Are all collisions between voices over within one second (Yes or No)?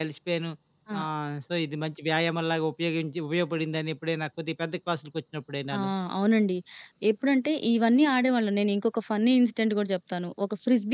Yes